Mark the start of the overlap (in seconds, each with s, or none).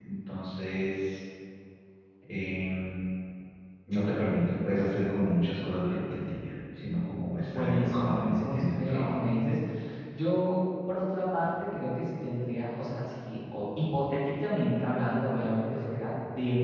7.5 s